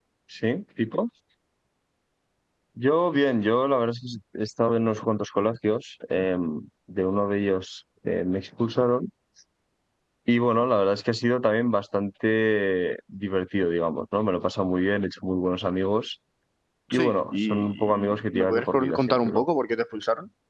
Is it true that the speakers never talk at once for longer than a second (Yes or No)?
No